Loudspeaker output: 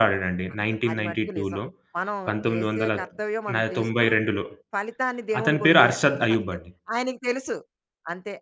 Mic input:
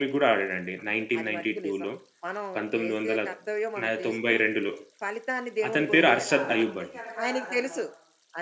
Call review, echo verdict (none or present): present